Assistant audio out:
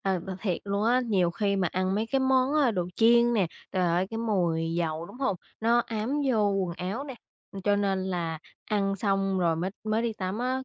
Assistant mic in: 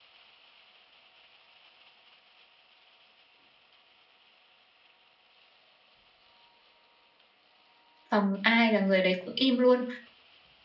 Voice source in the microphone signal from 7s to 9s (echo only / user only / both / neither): user only